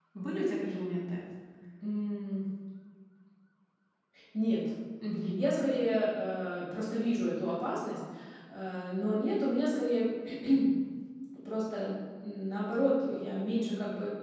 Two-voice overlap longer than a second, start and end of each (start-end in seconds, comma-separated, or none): none